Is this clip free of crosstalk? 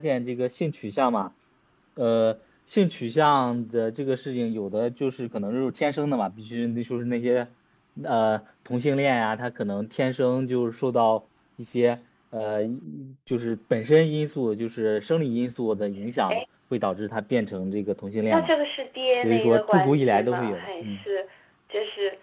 No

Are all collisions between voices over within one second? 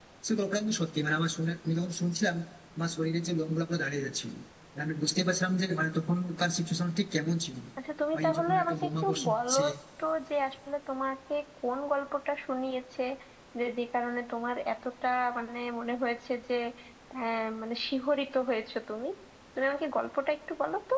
No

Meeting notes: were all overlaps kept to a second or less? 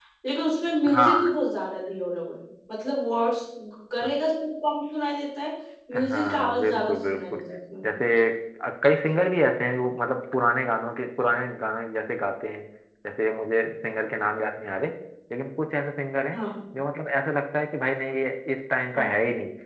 No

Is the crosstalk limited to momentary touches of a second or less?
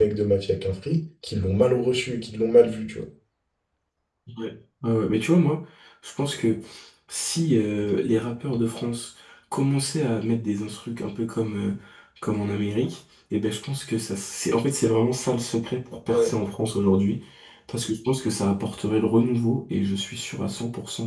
Yes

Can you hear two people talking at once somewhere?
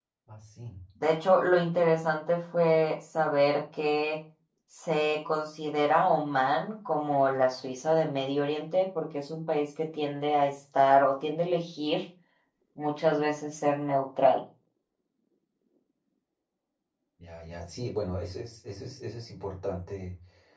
No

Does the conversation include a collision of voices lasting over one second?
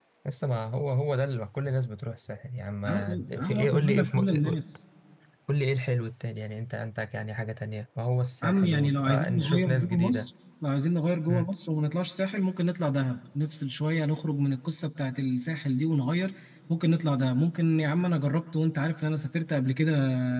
Yes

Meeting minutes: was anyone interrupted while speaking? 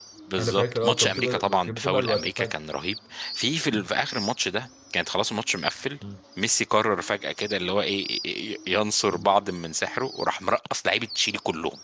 Yes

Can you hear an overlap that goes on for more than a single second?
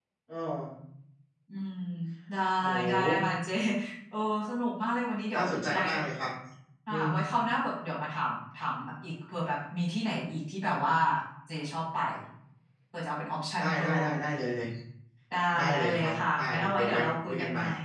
Yes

